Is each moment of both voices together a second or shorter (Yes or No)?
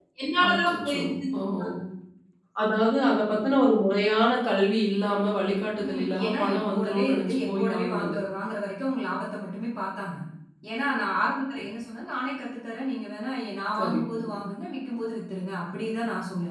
No